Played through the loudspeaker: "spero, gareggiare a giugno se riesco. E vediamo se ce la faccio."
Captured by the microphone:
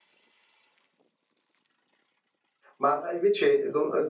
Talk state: user only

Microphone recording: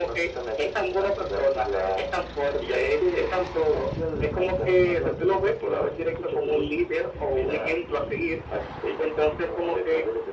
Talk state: echo only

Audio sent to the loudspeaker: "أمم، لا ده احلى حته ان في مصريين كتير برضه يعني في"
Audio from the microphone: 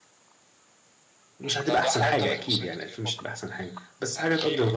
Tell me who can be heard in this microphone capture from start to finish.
both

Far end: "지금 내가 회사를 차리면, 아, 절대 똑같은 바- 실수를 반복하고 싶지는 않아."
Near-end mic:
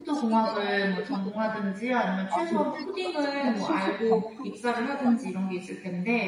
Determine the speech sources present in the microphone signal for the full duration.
both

